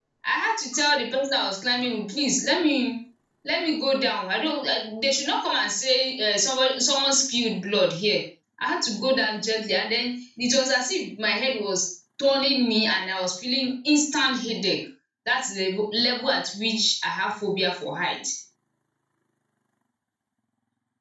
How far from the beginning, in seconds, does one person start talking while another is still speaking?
none

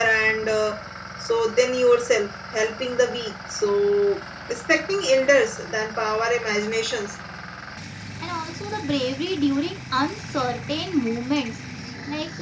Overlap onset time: none

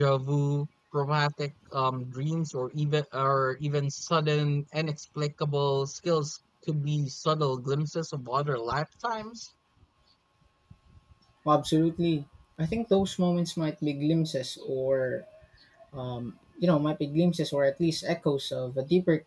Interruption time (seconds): none

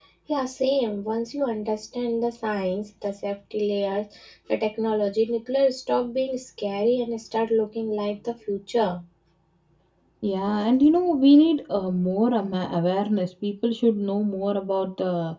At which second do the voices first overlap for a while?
none

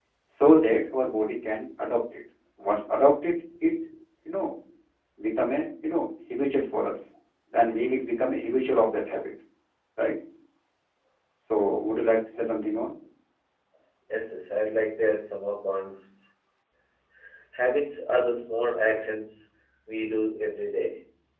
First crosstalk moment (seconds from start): none

